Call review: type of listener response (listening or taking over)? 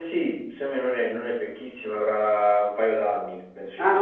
taking over